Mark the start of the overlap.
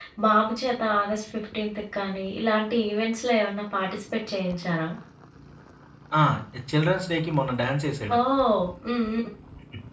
none

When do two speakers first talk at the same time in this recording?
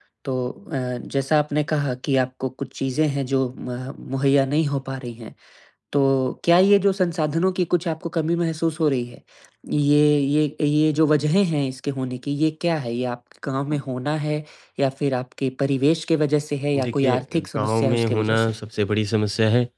16.8 s

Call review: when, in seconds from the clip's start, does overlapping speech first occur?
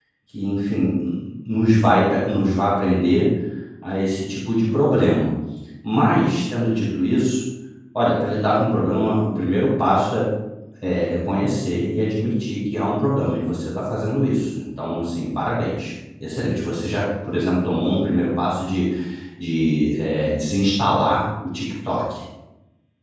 none

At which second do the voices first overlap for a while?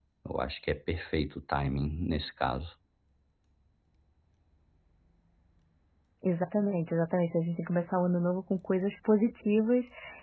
none

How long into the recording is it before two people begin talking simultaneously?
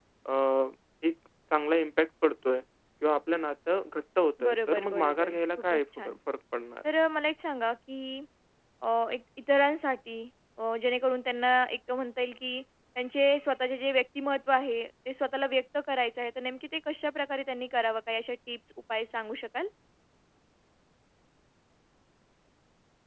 4.4 s

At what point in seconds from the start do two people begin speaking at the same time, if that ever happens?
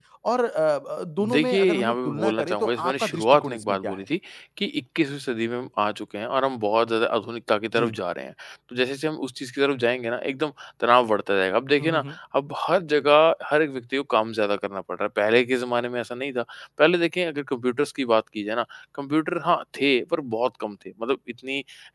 1.2 s

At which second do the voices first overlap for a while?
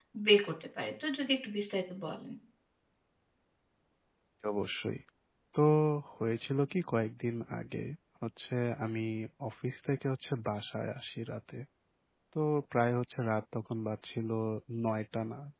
none

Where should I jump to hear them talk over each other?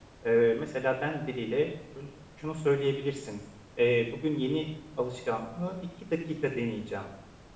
none

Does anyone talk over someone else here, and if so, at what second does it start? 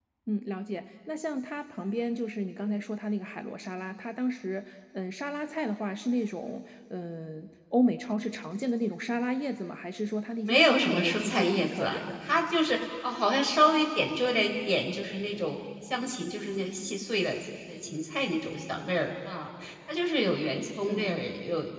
10.4 s

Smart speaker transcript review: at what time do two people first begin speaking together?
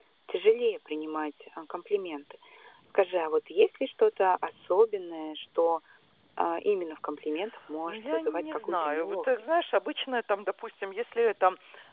7.9 s

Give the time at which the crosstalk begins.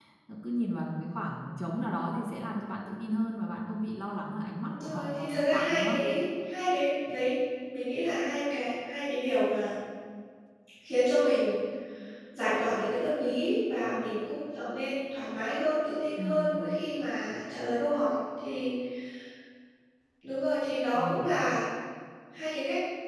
4.6 s

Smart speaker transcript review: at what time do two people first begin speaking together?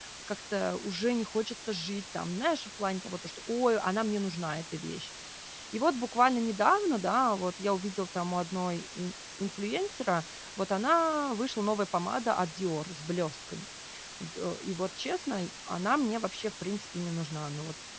none

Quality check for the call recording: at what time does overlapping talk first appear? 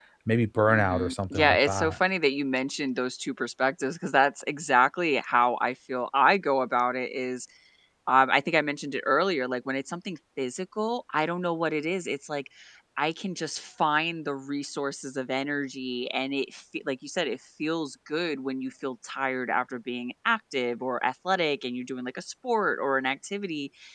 0.7 s

